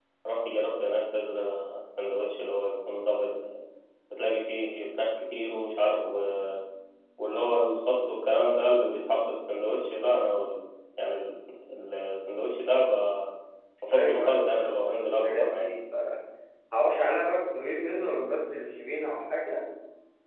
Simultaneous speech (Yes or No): Yes